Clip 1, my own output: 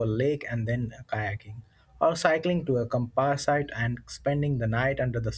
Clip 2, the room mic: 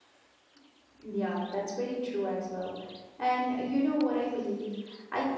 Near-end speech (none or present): present